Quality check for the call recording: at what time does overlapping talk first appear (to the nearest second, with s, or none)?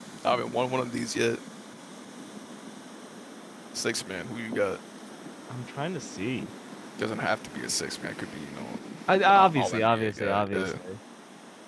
9 s